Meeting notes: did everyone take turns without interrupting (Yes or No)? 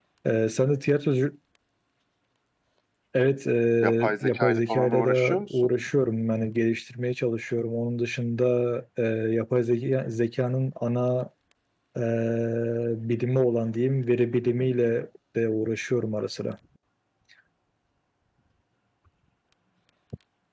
No